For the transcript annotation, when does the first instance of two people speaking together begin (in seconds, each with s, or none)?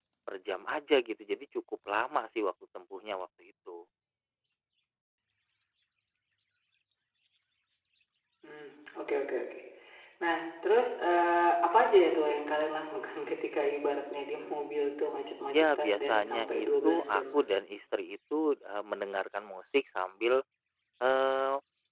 15.5 s